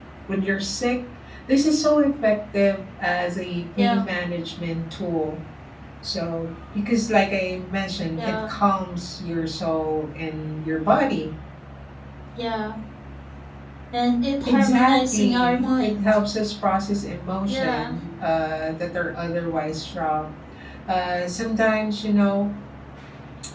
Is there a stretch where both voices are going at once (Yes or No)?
Yes